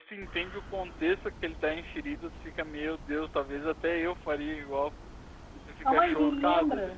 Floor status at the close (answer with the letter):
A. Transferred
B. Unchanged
A